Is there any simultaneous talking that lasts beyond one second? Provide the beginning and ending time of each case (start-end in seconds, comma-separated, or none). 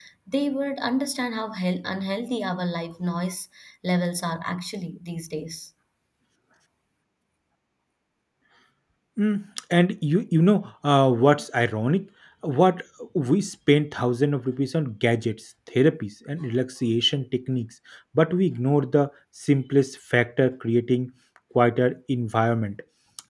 none